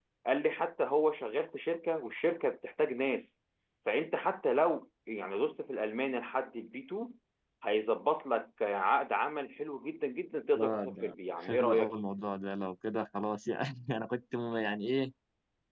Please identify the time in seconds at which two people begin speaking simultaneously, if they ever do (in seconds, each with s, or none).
10.6 s